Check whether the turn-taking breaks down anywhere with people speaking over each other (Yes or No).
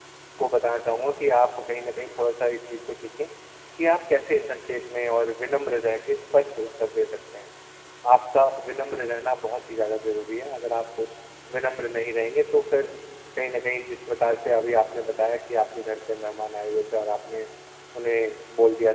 No